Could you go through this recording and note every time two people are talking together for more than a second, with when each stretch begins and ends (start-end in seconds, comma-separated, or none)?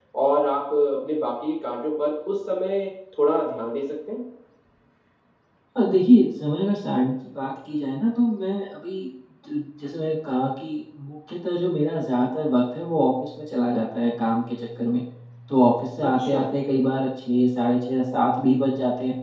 none